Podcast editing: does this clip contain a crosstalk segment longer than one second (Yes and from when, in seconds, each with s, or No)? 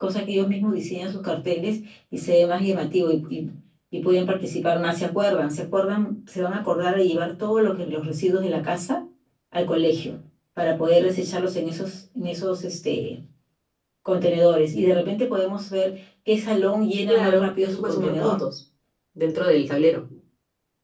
Yes, from 17.1 s